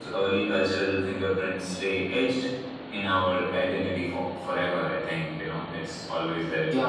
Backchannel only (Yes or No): No